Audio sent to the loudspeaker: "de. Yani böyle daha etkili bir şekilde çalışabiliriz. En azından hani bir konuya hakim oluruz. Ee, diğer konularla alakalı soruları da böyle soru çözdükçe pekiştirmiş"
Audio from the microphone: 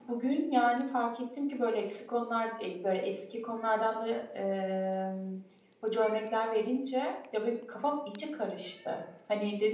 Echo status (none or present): none